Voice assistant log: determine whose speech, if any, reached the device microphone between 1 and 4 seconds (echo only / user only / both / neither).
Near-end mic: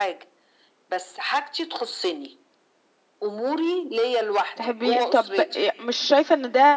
echo only